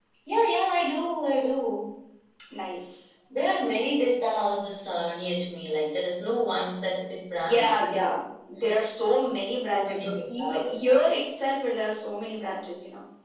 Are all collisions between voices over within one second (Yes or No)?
No